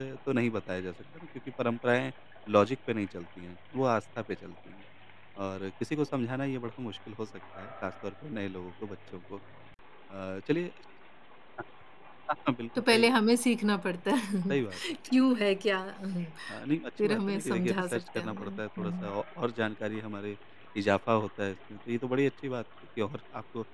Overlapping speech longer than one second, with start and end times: 17.0-19.1

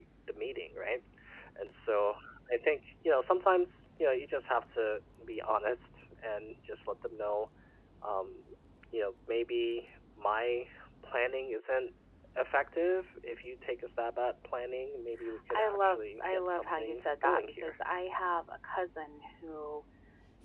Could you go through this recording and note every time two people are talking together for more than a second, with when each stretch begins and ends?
15.5-17.8

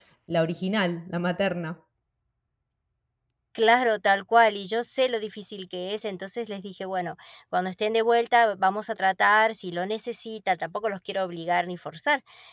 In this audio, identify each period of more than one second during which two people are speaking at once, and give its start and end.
none

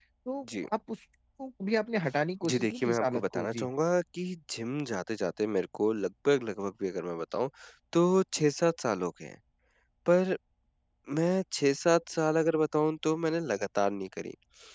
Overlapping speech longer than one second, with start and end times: 2.5-3.7

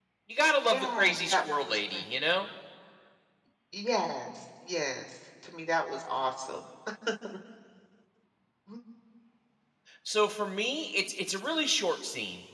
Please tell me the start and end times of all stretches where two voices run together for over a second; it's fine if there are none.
0.7-2.0

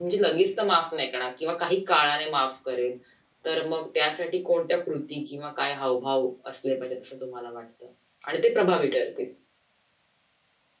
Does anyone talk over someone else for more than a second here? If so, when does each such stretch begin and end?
none

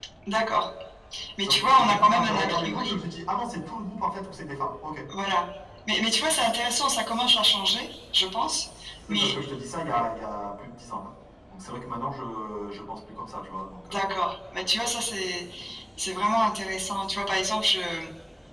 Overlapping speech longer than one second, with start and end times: 1.4-3.0

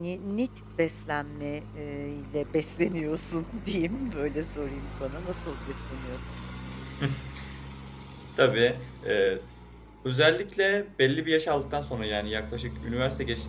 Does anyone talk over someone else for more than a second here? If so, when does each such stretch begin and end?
none

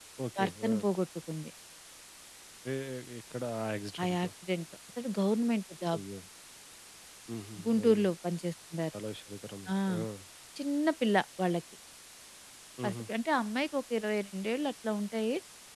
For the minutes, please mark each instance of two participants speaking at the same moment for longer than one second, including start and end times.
none

